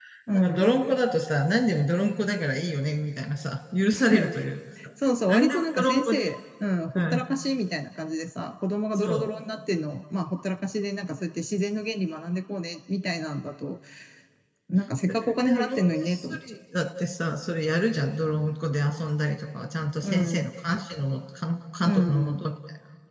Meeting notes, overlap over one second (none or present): present